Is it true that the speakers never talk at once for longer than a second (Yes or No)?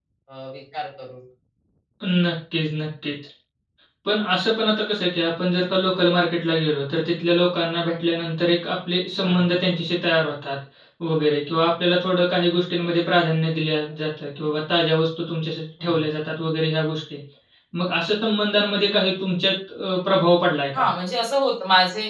Yes